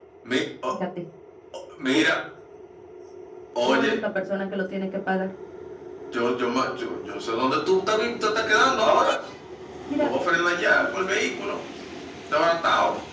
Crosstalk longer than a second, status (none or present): none